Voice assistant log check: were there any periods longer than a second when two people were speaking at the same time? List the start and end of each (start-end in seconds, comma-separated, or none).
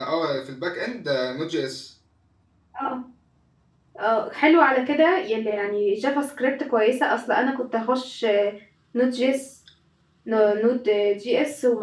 none